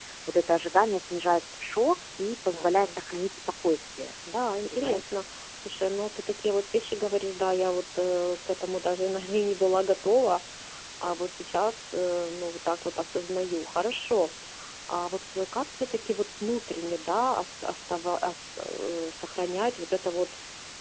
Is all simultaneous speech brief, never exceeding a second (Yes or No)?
Yes